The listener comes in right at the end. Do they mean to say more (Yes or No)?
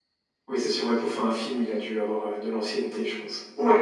Yes